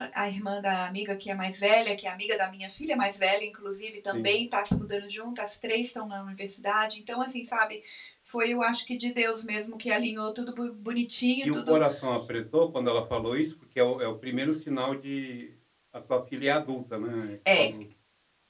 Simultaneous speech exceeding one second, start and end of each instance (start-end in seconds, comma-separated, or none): none